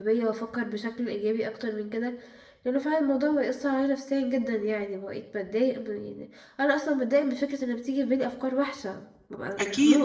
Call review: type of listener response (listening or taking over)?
taking over